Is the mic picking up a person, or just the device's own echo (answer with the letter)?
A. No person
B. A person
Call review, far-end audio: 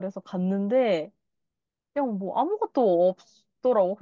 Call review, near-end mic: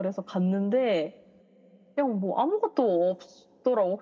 A